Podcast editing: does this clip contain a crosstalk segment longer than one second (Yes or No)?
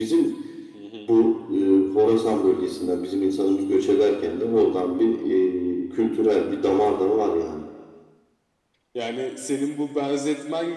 No